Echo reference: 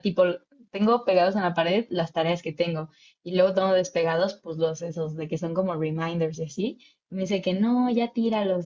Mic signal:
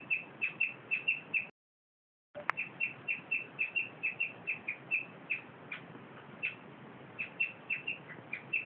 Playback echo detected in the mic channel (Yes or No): No